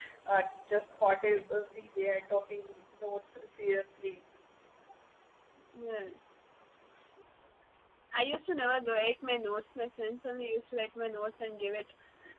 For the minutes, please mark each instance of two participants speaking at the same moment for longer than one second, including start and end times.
none

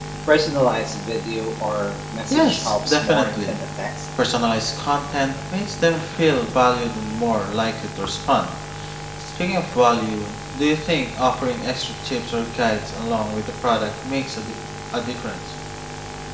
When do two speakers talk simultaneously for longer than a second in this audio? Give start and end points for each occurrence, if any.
2.3-3.6

